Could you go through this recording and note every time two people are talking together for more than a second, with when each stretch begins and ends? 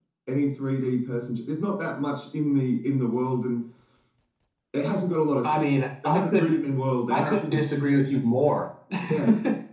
none

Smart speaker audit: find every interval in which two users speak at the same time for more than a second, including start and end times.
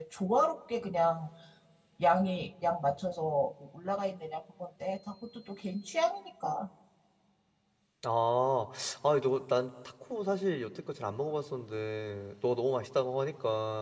none

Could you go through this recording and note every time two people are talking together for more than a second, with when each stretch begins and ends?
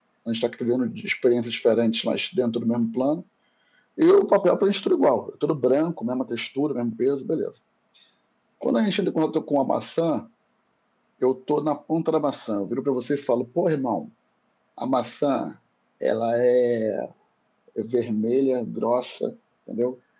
none

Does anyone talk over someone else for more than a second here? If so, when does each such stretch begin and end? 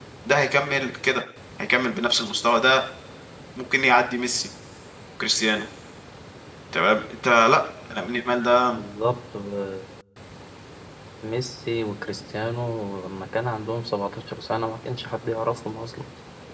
none

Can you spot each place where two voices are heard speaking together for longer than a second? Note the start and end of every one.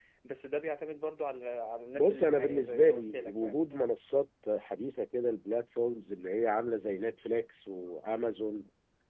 1.9-3.6

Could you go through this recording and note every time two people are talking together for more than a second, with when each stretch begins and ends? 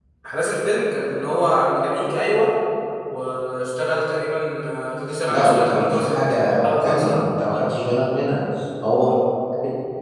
5.3-7.2

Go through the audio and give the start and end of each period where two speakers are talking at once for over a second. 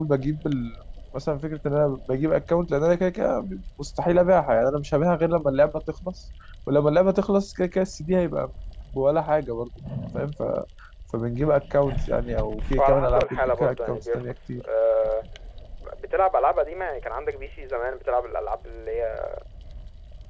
12.8-14.6

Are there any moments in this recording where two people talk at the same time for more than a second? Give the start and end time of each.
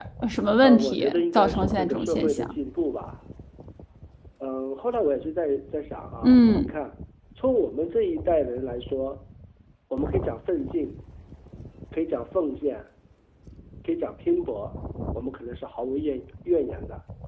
0.6-2.6

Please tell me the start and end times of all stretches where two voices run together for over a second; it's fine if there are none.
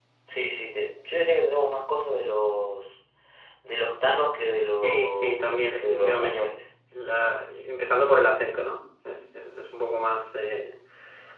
4.7-6.5

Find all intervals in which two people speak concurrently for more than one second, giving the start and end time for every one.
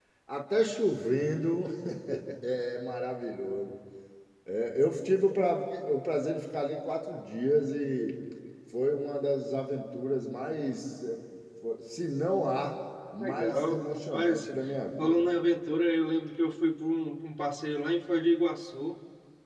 13.2-14.4

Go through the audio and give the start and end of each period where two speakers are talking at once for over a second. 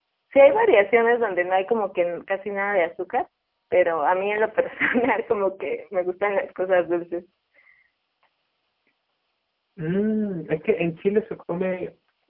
none

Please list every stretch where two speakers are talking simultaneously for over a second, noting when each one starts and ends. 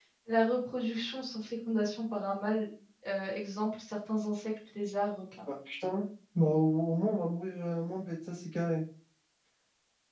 none

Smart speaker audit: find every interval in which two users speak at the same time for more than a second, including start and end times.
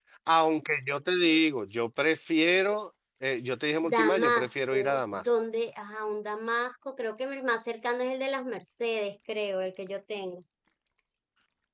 3.8-5.3

